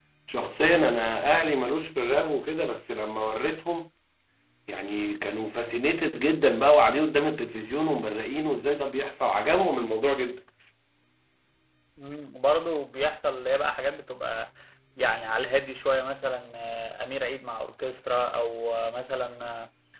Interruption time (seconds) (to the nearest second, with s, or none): none